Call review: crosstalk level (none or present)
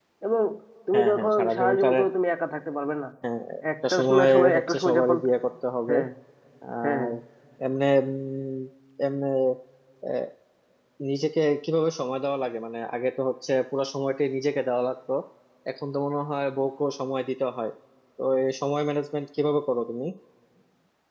present